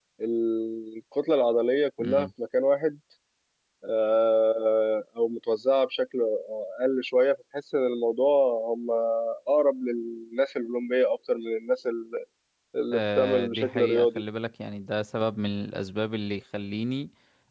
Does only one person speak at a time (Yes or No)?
No